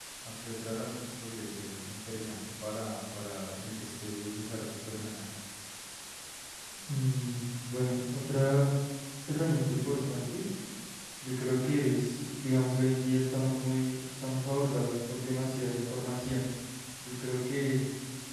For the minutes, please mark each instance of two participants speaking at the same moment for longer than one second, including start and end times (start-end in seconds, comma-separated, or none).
none